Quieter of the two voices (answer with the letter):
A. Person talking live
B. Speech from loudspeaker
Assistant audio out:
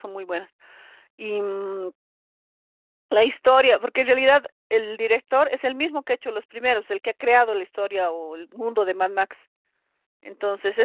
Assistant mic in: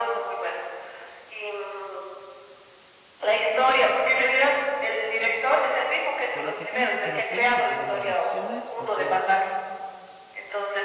A